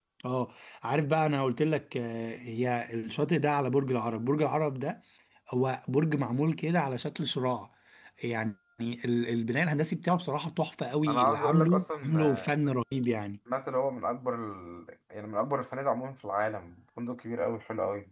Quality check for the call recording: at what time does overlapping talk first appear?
11.1 s

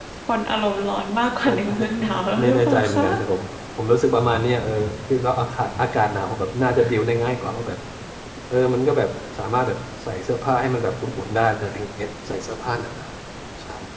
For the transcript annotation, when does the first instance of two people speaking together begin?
1.4 s

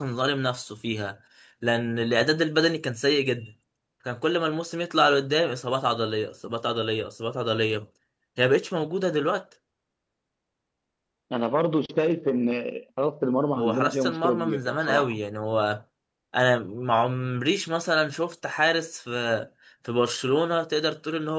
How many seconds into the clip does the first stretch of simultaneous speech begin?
13.6 s

